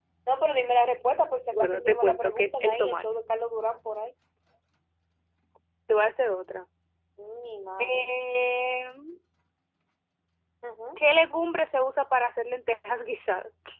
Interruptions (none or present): present